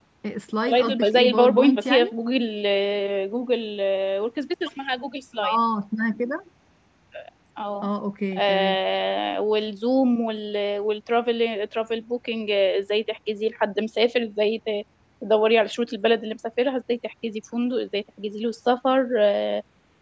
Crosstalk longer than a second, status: present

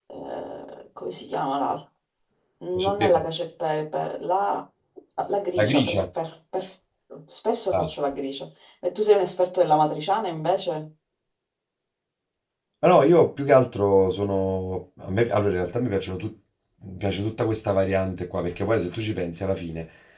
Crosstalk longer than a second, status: none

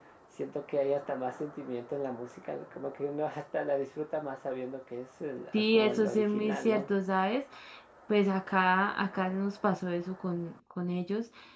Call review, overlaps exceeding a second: present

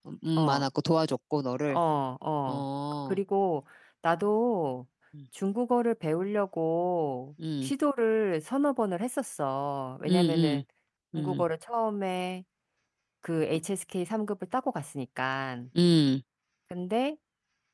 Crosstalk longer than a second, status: none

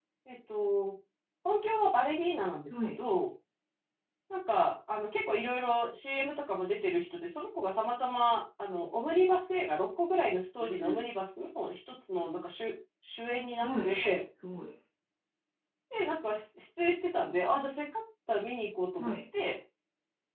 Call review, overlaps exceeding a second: none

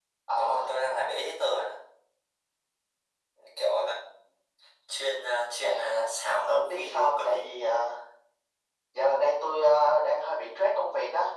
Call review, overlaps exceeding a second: present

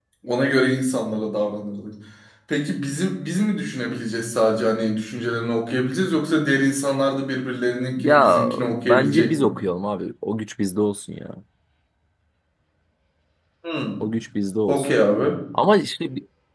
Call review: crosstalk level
present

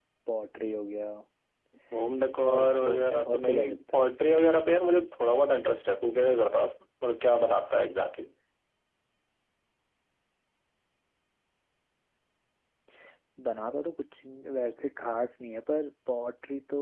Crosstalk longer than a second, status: present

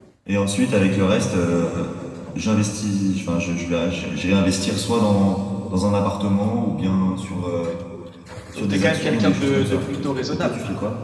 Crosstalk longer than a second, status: present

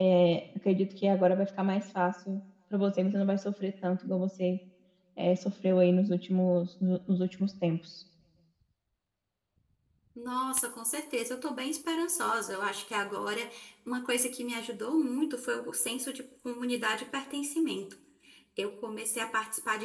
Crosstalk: none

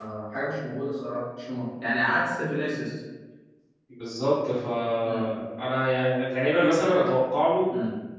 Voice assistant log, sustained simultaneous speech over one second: none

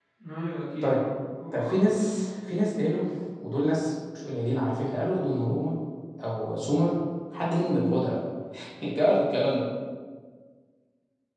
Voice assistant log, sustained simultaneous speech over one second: none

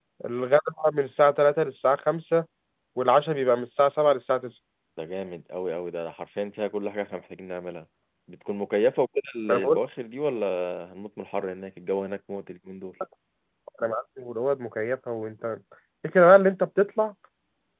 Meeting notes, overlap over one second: none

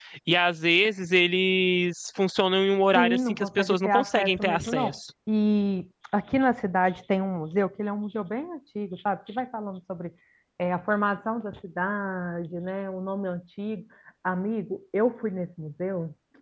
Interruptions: present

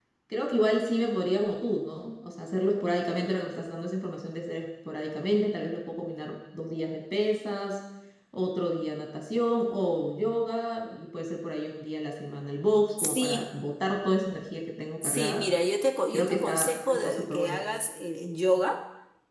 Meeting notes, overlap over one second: present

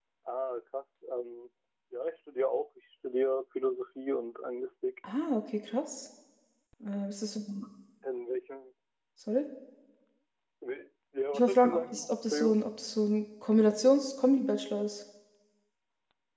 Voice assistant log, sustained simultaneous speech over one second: present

